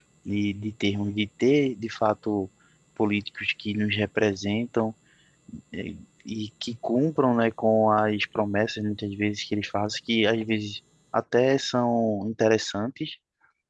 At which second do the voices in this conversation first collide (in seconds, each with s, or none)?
none